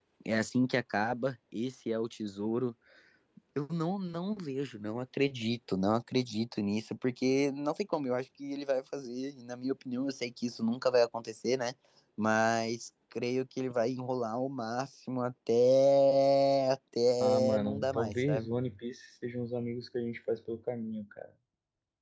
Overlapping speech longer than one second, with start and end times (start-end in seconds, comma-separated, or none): 17.2-18.5